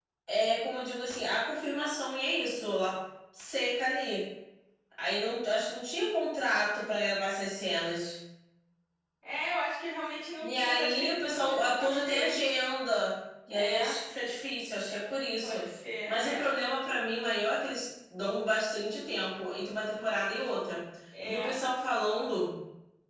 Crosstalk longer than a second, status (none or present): present